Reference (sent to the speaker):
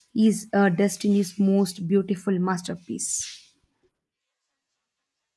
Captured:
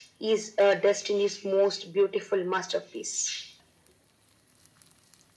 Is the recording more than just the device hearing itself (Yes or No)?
No